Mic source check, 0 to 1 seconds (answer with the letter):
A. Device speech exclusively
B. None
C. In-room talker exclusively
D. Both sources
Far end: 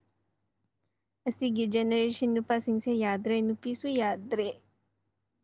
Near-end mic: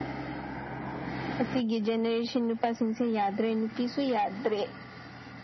B